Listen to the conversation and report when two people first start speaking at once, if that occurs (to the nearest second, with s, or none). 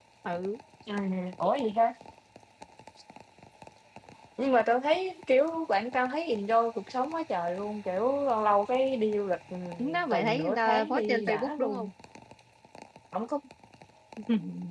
10 s